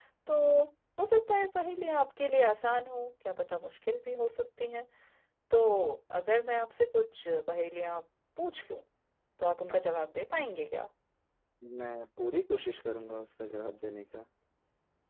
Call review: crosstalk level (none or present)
none